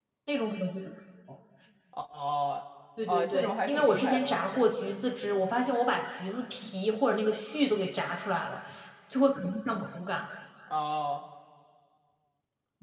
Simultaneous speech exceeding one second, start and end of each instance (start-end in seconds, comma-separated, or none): 3.1-4.7